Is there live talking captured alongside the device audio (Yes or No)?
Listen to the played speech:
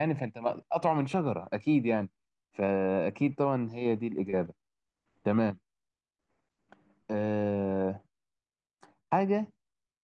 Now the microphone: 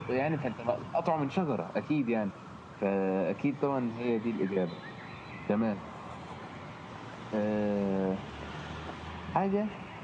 No